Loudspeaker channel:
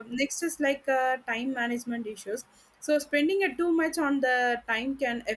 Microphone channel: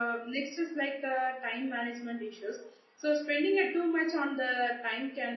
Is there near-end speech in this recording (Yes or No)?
No